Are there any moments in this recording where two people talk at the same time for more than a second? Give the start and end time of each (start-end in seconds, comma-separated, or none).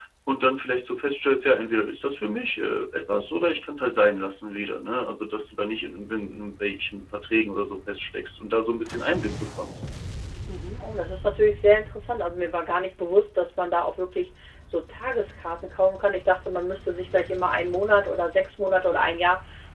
none